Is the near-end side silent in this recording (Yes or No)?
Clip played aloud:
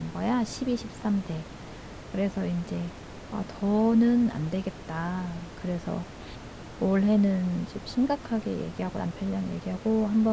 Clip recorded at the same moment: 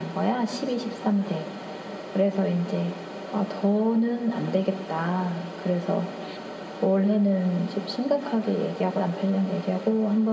Yes